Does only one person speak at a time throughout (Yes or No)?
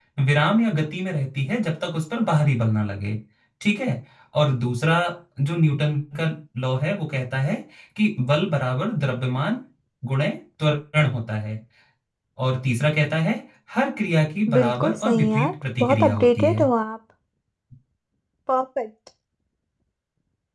No